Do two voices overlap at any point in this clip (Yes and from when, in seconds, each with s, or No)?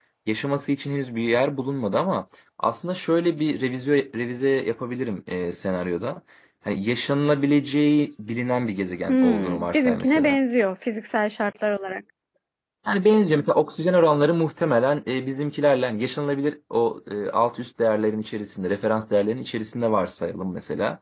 Yes, from 9.1 s